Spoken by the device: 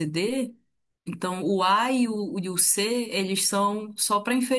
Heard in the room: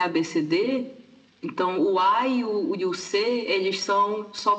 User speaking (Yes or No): No